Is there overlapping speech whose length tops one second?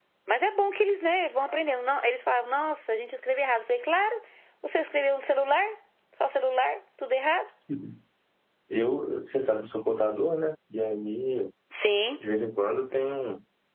No

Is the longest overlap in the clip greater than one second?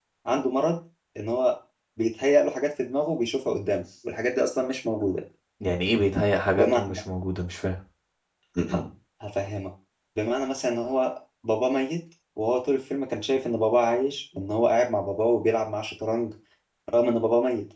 No

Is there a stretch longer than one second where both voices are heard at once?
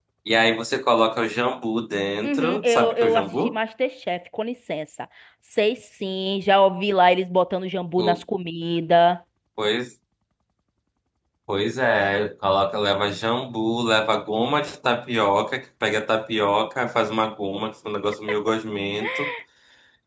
Yes, from 2.2 s

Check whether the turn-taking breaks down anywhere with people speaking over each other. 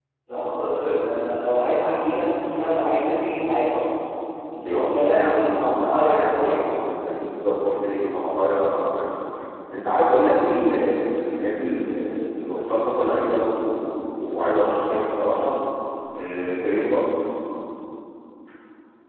Yes, from 4.5 s

